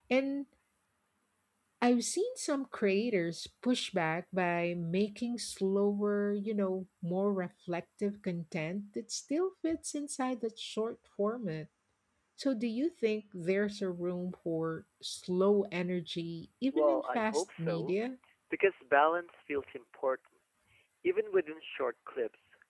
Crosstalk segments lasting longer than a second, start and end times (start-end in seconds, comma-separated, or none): 16.7-18.0